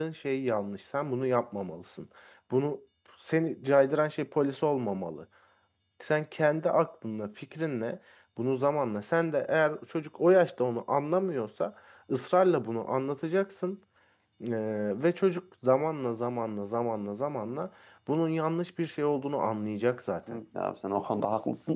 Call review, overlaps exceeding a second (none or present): none